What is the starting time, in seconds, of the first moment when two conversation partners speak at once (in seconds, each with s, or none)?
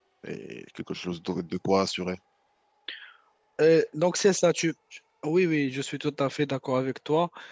none